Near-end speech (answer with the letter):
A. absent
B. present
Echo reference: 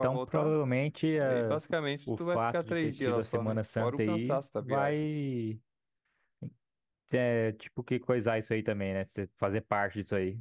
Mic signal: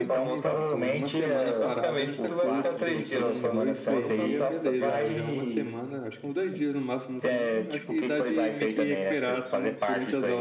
B